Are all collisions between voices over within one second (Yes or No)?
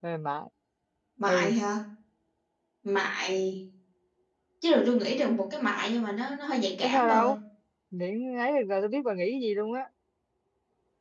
Yes